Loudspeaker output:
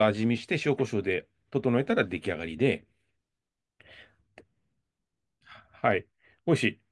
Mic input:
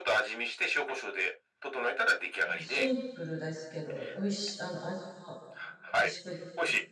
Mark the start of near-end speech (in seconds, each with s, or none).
2.5 s